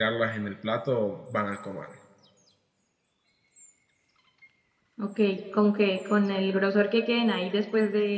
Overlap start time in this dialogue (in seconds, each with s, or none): none